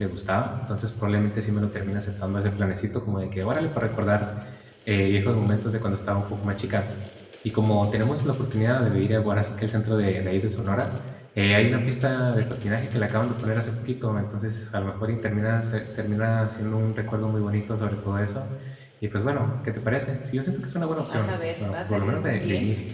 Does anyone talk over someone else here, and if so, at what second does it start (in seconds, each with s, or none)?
21.1 s